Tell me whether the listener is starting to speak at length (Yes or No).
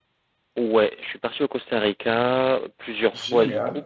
No